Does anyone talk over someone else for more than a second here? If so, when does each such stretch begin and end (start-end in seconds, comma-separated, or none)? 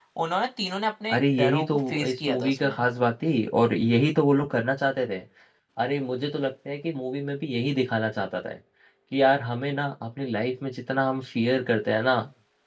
1.1-2.8